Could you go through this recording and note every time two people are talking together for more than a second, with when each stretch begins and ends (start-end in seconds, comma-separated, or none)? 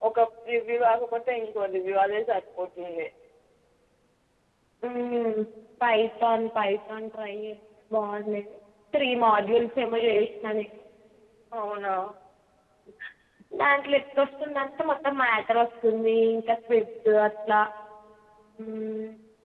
none